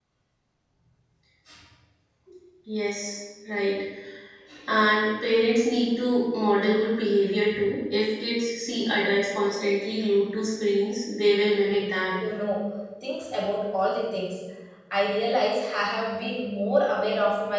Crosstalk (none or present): none